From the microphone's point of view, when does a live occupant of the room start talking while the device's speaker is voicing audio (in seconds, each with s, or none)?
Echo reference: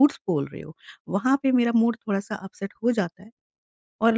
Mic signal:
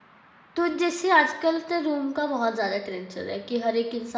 0.6 s